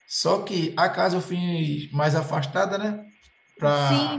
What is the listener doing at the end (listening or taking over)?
taking over